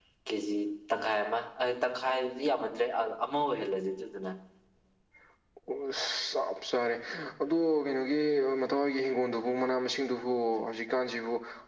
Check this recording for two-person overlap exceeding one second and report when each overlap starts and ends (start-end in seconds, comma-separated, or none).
none